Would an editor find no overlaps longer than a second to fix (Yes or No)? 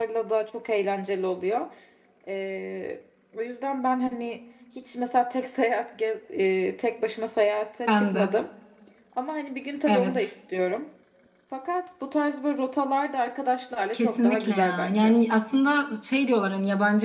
No